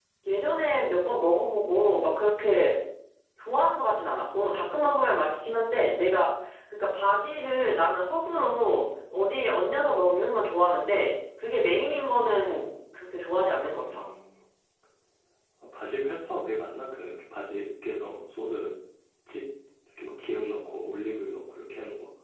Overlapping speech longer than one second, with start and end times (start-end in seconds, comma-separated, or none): none